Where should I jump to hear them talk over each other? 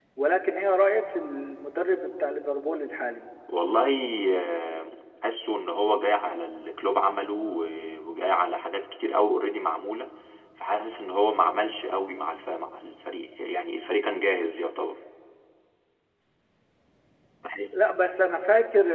none

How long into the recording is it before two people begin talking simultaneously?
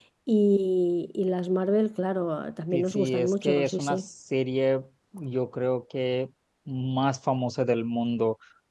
3 s

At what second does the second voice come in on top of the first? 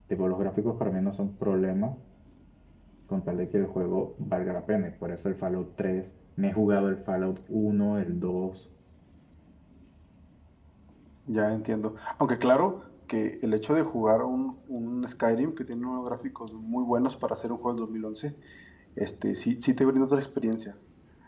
none

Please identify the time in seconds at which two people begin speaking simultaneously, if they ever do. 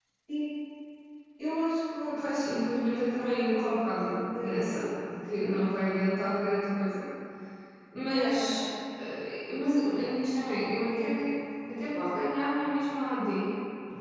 2 s

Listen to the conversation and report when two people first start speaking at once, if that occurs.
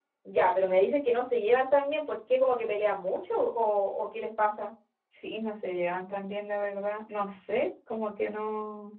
none

